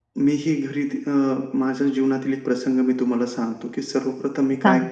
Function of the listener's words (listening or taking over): listening